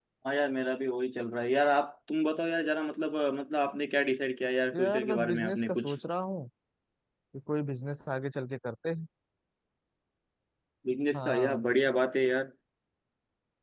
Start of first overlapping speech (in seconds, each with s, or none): 4.8 s